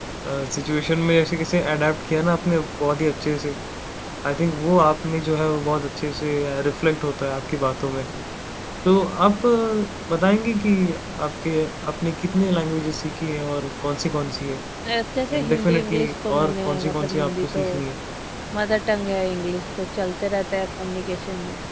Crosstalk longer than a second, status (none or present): present